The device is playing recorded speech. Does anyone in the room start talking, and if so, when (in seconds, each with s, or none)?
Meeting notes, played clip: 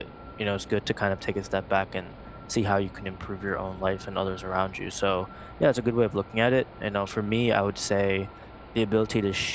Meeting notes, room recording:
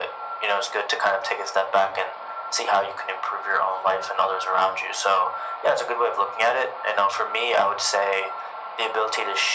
none